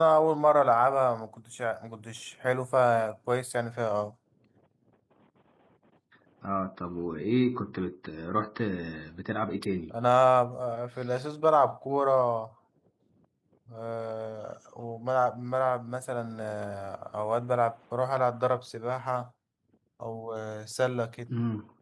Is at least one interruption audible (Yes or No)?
No